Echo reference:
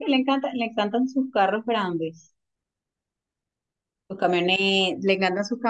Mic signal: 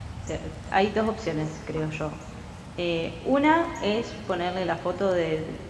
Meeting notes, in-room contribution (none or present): present